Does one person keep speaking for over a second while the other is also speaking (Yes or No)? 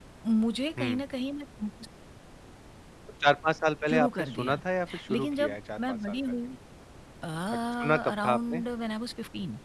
Yes